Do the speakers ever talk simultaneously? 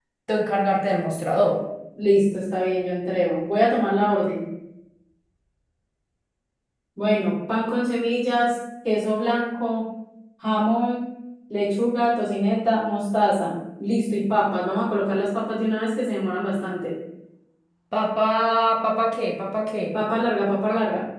No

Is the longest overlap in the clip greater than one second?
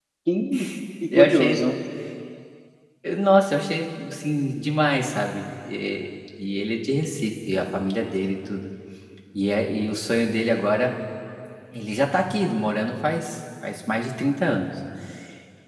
No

